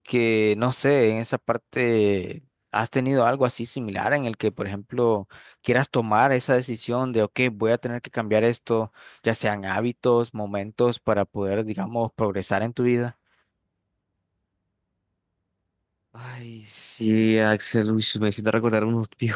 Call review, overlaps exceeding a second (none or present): none